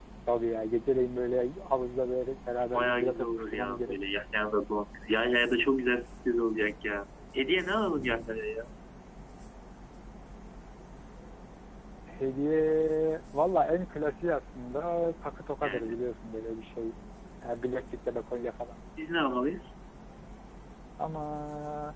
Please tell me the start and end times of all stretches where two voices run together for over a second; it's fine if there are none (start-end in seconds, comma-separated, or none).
2.7-4.0